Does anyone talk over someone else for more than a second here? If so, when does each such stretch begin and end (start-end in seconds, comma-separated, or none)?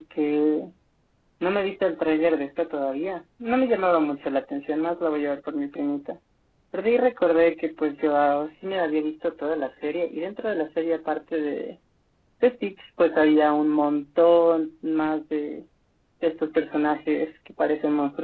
none